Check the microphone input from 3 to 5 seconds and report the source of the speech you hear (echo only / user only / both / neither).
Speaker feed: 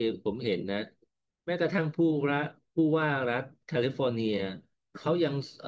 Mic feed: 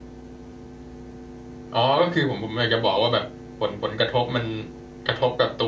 user only